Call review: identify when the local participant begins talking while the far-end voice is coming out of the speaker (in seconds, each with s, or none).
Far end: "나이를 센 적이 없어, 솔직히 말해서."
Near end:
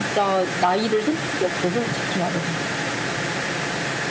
none